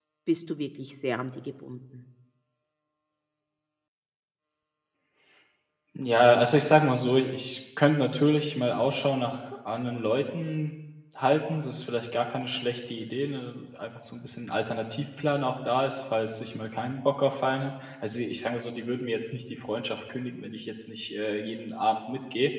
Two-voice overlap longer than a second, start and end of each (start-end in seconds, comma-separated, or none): none